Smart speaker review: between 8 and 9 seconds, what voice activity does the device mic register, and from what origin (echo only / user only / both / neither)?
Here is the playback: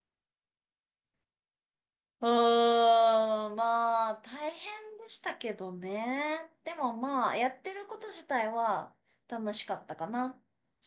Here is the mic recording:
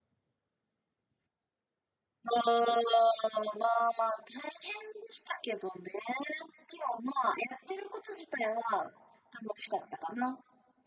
echo only